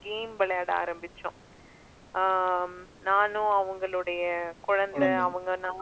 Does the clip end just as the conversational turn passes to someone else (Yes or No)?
No